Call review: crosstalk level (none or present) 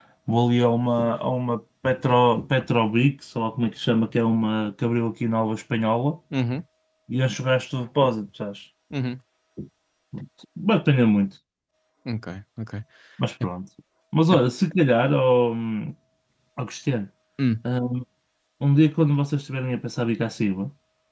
none